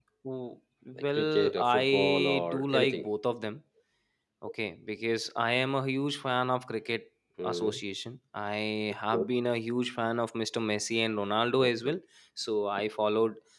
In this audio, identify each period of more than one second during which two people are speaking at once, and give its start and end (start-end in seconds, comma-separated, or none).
1.2-3.1